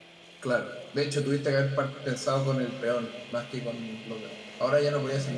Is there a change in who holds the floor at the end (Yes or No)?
Yes